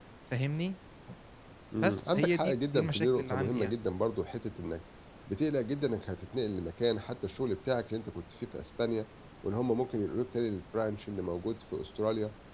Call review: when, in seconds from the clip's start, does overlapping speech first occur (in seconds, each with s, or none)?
1.8 s